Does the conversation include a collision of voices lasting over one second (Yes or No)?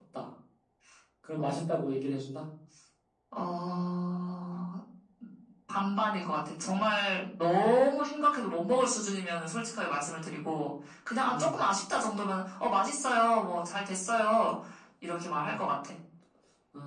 No